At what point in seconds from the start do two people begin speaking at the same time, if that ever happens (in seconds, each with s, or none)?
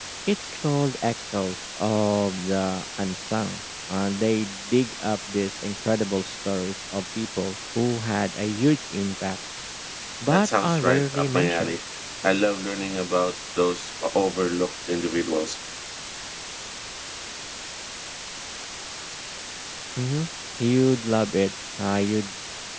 10.3 s